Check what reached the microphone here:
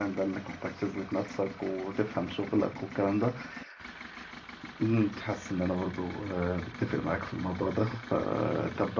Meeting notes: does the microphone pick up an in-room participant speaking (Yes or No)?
Yes